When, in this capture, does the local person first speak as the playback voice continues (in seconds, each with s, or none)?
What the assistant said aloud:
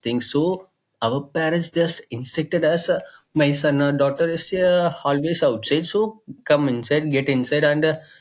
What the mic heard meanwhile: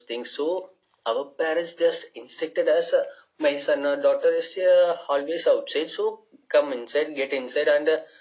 none